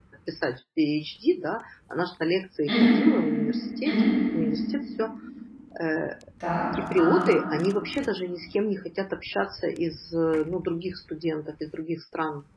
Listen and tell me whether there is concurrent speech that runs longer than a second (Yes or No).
No